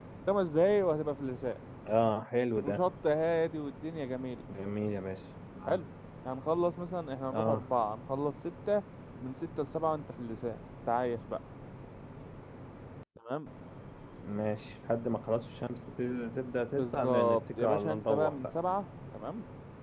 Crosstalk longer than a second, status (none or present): present